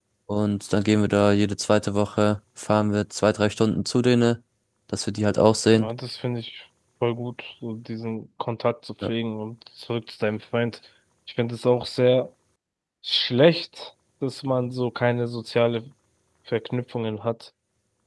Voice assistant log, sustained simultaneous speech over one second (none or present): none